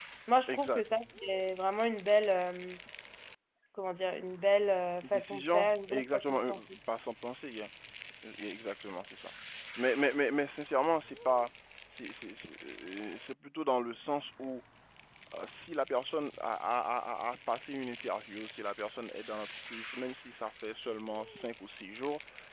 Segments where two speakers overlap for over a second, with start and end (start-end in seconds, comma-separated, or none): 5.0-6.5